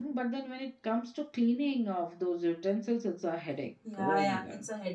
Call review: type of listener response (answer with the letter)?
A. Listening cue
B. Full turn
B